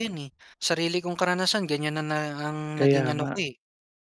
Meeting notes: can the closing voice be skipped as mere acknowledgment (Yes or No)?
Yes